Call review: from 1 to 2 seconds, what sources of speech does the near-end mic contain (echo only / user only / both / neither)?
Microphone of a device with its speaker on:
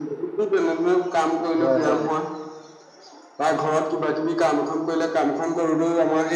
both